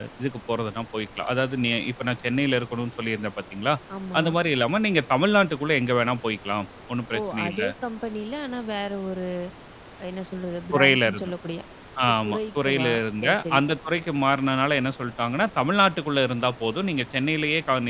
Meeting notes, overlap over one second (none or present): present